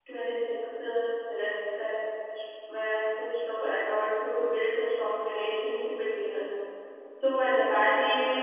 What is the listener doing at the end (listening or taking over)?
listening